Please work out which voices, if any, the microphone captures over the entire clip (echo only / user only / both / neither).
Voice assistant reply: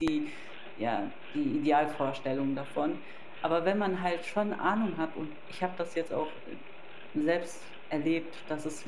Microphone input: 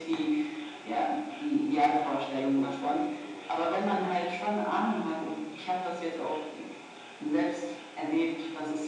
both